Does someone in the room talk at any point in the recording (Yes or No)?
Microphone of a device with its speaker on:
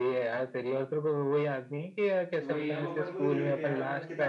Yes